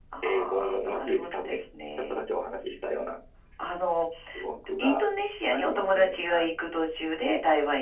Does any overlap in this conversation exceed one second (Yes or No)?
Yes